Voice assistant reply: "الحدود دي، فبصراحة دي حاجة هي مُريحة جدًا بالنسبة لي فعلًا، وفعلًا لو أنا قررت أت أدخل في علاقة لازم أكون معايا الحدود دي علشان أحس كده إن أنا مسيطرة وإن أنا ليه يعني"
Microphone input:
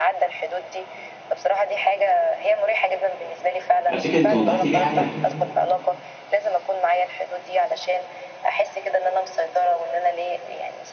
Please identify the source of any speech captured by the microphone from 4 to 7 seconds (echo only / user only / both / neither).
both